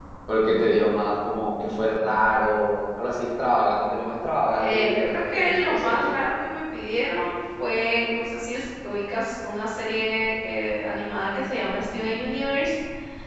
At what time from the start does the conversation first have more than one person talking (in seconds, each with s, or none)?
4.6 s